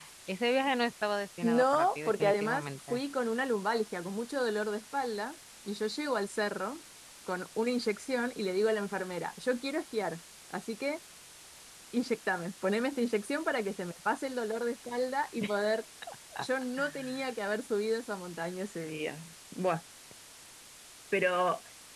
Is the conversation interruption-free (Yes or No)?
No